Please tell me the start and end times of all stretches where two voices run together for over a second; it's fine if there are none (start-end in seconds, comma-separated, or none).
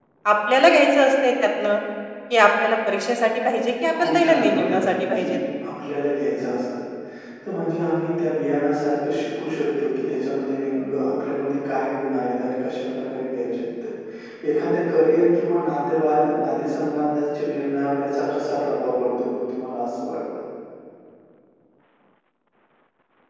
4.0-5.4